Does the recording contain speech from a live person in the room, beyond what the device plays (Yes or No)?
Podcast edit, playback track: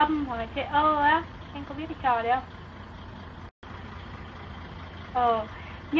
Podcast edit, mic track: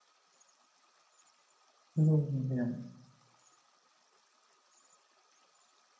Yes